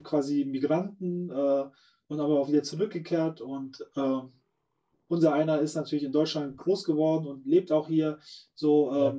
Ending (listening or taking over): listening